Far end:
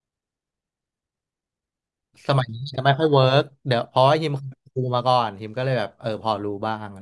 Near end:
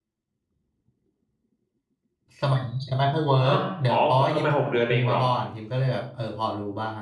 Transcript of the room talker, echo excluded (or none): ฮะอ๋อเอ้มาหกเดือนเองเหรอ